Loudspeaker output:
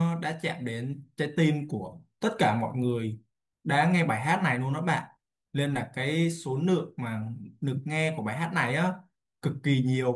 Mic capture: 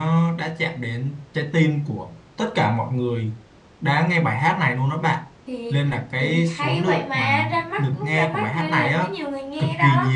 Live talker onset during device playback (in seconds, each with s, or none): 5.5 s